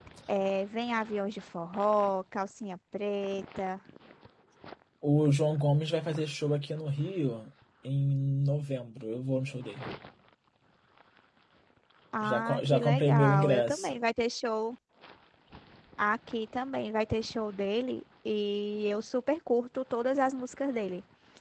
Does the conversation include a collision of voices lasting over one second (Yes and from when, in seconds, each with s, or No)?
Yes, from 12.2 s